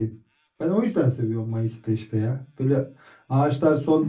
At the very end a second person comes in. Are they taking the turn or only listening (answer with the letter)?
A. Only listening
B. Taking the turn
A